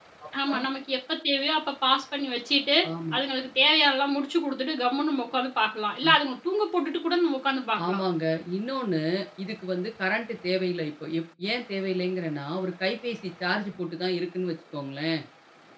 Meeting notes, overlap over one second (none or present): none